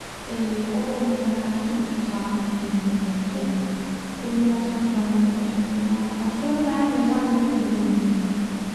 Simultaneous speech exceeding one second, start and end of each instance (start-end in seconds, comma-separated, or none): none